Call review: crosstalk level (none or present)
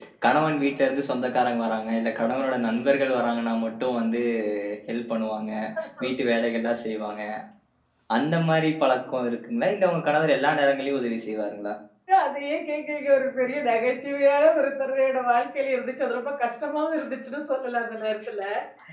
none